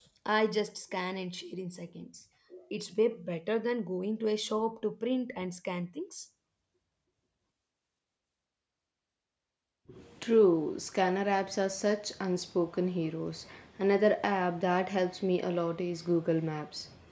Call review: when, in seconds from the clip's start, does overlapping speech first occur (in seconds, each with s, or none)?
none